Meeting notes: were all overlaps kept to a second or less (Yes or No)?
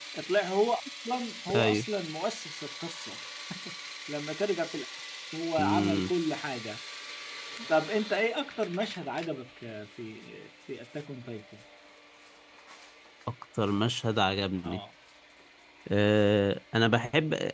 Yes